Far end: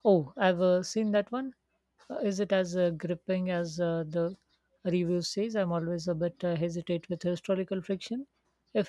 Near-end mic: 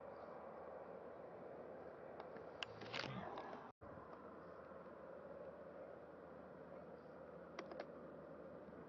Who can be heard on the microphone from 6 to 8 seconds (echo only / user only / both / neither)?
neither